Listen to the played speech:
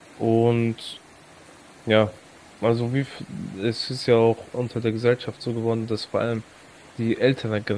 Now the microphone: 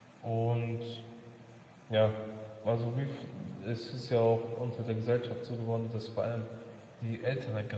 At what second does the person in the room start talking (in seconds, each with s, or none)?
none